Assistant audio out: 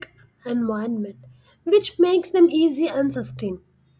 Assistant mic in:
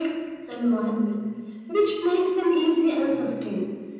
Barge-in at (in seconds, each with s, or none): none